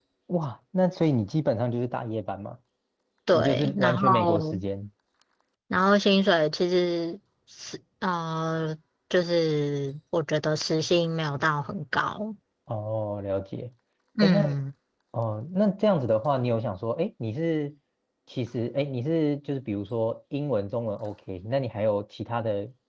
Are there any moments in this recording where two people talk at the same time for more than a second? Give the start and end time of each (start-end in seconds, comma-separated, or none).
3.3-4.6